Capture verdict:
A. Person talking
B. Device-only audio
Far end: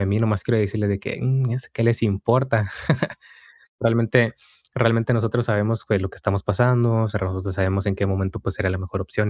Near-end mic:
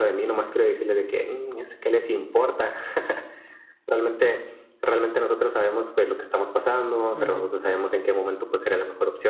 A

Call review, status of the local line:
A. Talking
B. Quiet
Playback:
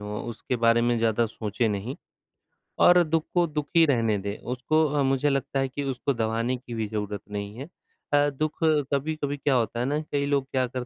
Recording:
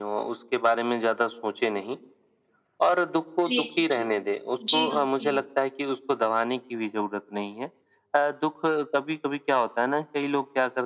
A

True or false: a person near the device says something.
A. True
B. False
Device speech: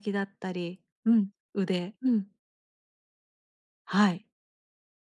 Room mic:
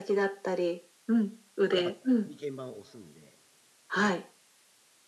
A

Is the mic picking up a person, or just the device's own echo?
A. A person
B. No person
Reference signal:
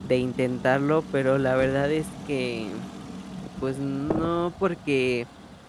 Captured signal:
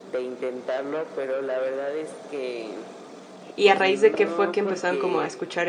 A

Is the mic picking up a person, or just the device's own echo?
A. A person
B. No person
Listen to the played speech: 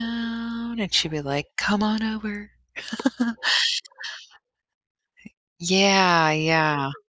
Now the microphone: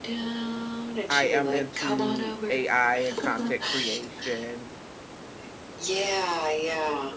A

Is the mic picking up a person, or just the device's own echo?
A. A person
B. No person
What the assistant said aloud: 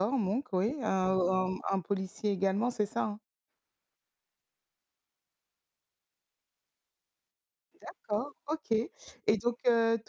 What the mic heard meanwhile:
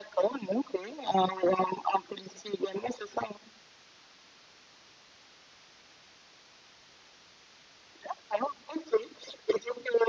B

